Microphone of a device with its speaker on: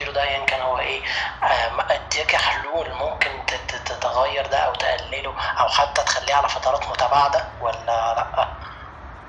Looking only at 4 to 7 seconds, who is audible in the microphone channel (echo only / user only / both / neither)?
echo only